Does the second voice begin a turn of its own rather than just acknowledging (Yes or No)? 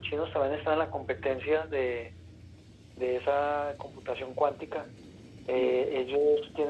No